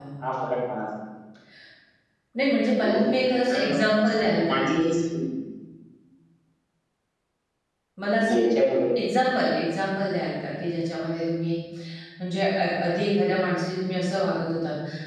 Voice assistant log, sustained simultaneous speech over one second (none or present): present